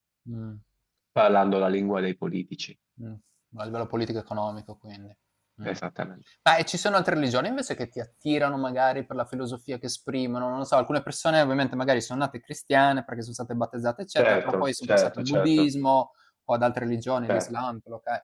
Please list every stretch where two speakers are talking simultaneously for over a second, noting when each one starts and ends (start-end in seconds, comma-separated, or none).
14.2-15.7